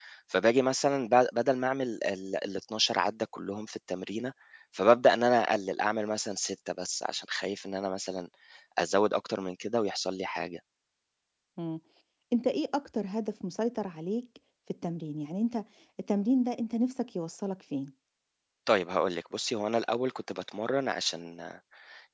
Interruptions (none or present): none